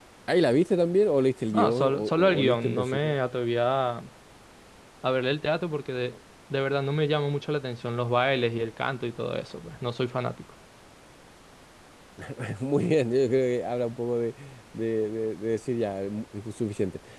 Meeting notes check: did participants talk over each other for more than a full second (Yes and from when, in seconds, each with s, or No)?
Yes, from 1.5 s